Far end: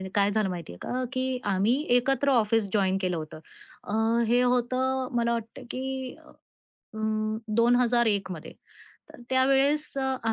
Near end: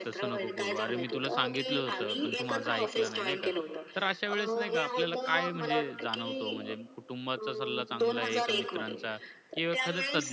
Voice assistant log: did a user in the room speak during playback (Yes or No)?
Yes